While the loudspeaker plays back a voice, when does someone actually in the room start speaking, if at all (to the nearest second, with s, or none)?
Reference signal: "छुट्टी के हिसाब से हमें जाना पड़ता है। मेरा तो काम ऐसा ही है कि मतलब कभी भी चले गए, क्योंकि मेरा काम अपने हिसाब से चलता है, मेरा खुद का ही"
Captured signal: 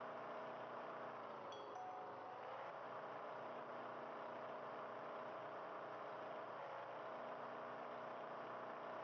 none